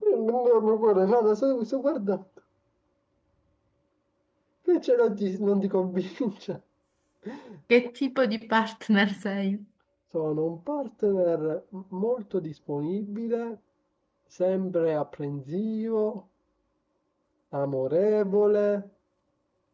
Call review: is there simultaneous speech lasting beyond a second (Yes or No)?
No